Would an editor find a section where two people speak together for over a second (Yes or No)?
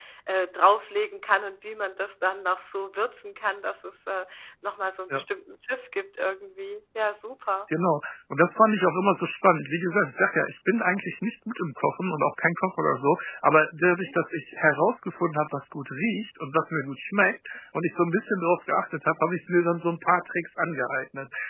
No